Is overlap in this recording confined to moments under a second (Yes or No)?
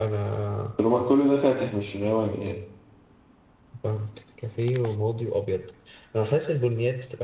Yes